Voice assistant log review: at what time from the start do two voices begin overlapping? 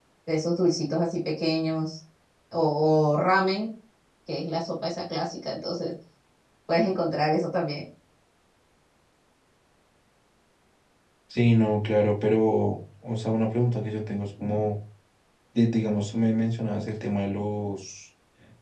none

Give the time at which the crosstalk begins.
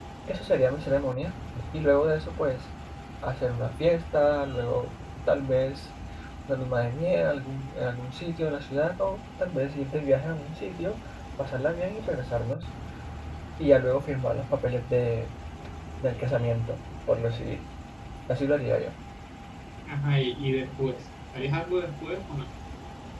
none

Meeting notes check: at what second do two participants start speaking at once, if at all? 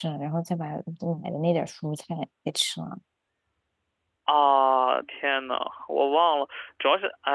none

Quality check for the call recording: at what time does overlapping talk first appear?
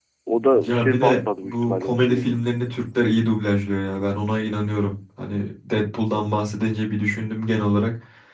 0.7 s

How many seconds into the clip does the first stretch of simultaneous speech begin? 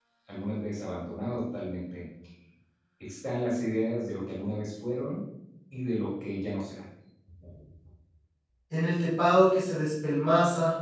none

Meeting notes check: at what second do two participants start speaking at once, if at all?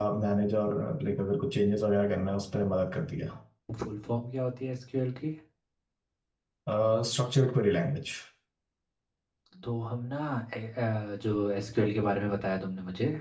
none

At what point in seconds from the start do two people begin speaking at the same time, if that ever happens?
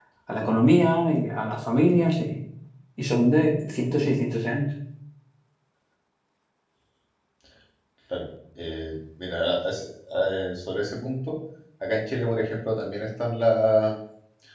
none

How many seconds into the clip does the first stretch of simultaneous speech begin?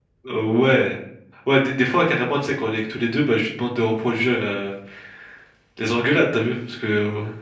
none

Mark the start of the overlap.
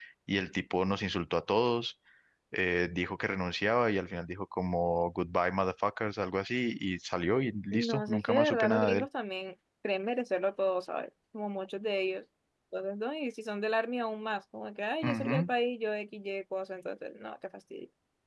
7.7 s

